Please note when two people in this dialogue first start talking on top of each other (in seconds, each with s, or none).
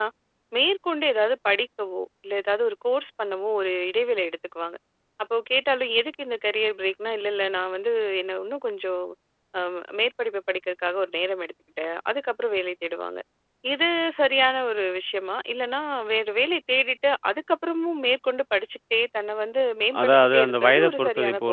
19.9 s